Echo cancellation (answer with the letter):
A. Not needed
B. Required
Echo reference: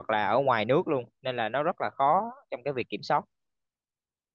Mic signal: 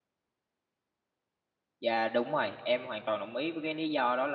A